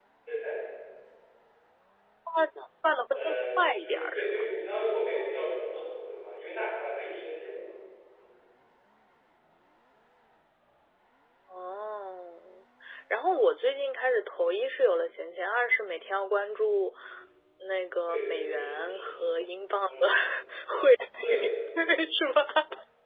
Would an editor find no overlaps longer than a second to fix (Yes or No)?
No